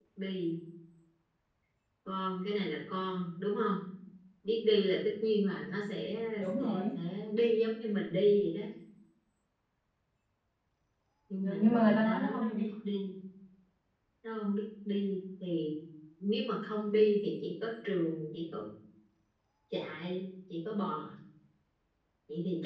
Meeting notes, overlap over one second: present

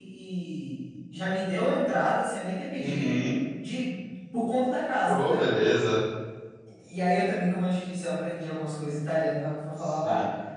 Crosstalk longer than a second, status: none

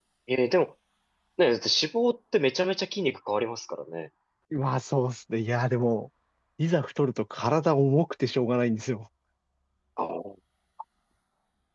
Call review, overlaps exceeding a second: none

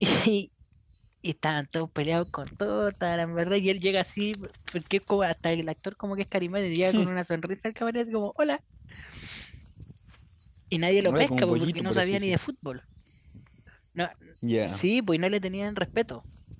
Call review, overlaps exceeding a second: present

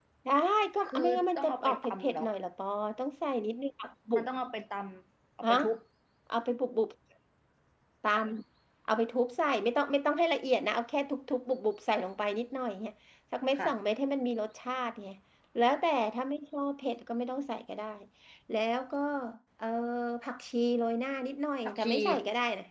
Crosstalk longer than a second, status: present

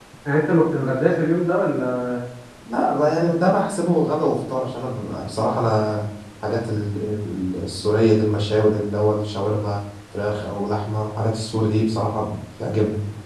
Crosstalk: none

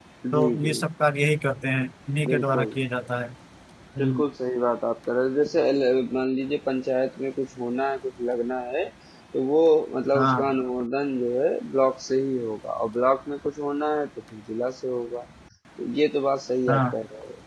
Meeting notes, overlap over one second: none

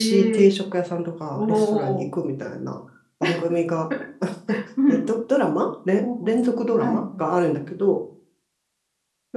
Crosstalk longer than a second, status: present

